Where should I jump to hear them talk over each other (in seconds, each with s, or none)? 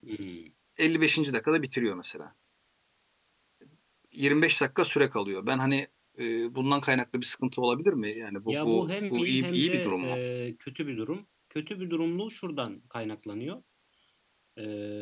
8.5 s